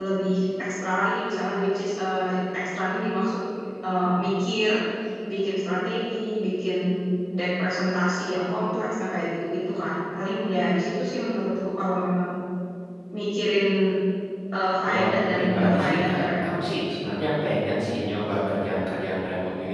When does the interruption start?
14.9 s

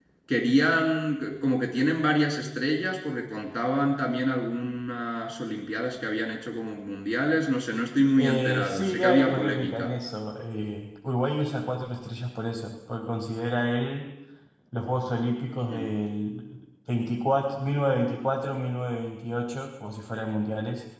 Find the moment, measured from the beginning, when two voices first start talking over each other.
8.2 s

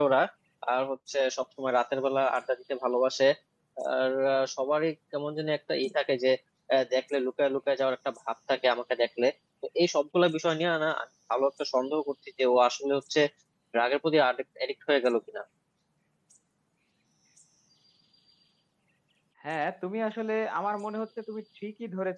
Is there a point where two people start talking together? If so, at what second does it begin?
none

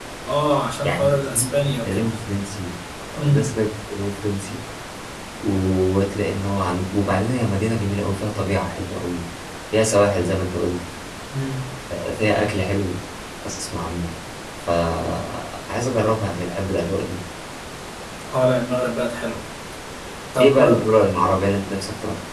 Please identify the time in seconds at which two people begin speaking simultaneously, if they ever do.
0.8 s

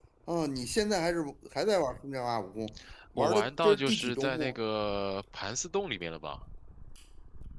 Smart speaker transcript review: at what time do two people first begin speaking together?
3.2 s

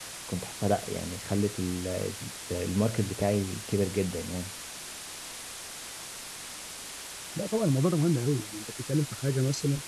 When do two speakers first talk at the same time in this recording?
none

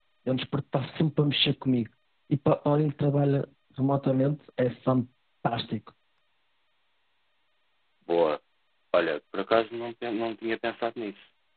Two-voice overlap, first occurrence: none

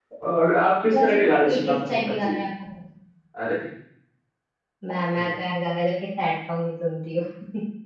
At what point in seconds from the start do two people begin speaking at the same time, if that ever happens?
0.9 s

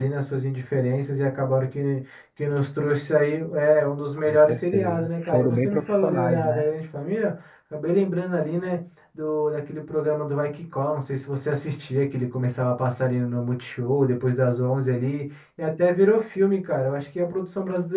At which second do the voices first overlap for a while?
4.2 s

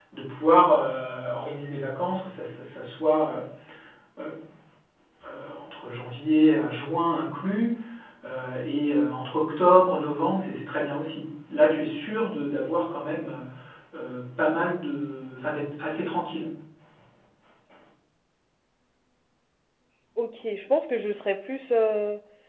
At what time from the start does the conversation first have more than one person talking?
none

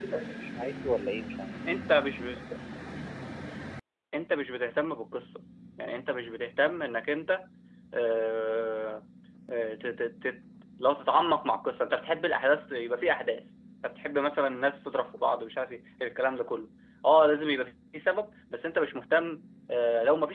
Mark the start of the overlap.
none

